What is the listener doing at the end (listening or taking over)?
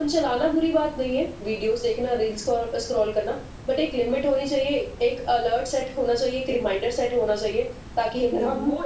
taking over